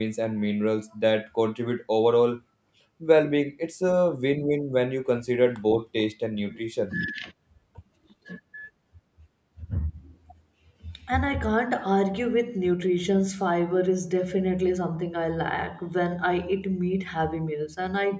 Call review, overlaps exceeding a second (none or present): none